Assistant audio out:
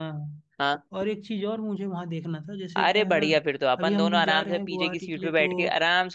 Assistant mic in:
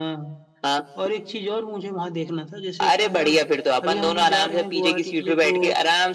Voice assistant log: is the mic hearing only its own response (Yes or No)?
Yes